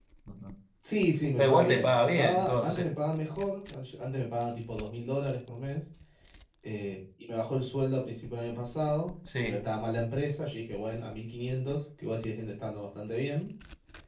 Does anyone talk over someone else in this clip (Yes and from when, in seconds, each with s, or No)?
Yes, from 1.4 s